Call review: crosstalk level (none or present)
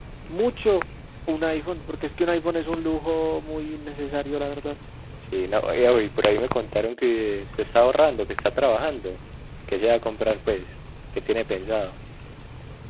none